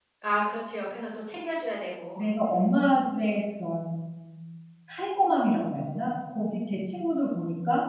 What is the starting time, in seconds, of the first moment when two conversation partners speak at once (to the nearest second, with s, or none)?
none